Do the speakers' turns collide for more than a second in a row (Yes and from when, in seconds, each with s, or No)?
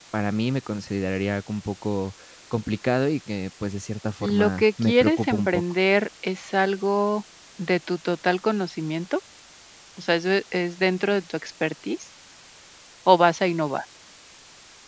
Yes, from 4.2 s